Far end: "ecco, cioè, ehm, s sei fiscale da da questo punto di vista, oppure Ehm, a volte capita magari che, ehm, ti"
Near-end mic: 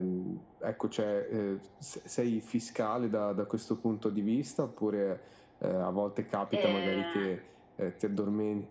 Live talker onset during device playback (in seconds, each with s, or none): 6.5 s